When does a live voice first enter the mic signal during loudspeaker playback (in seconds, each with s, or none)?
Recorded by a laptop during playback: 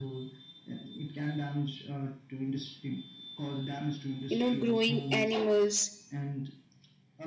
4.3 s